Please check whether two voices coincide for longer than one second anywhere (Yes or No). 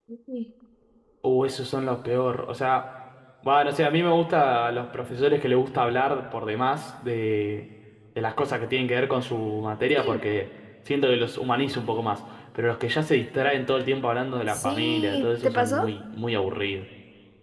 Yes